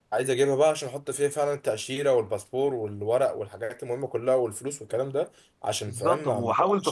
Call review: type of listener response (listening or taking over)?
taking over